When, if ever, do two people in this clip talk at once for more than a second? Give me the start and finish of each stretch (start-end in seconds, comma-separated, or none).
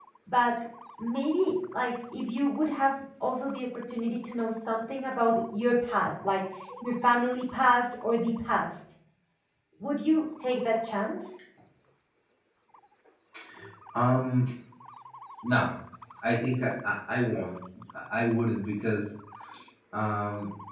none